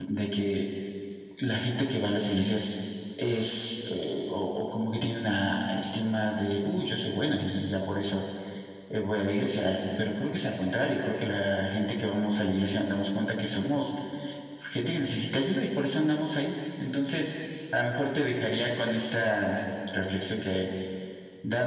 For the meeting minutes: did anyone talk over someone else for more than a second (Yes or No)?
No